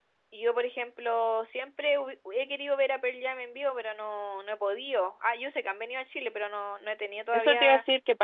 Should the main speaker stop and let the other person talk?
Yes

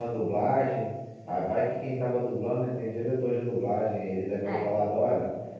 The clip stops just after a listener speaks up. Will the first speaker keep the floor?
Yes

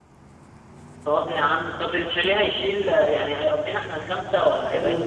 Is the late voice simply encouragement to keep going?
No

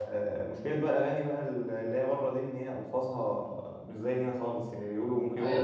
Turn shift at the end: Yes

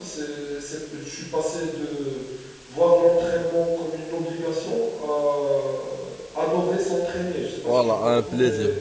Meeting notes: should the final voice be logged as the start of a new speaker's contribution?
Yes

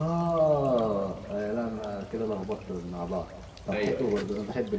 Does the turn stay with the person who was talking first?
Yes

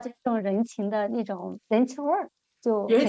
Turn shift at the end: Yes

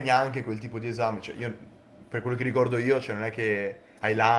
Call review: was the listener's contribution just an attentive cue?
Yes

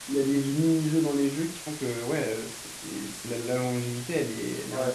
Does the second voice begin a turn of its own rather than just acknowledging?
Yes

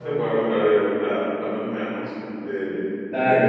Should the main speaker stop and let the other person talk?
Yes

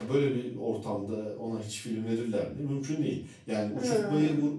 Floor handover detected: No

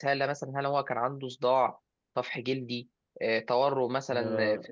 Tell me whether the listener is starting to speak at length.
Yes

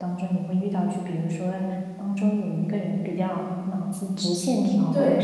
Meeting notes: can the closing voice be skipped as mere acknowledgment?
Yes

